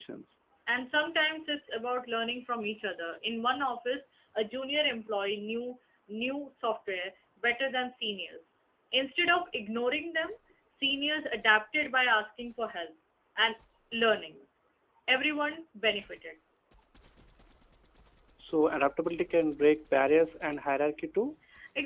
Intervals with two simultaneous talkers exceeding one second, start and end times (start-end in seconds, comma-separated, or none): none